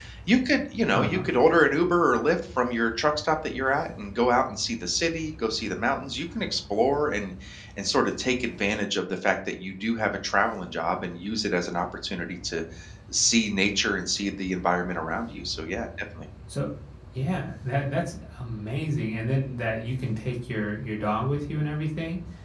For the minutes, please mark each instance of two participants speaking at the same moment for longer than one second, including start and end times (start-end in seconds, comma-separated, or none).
none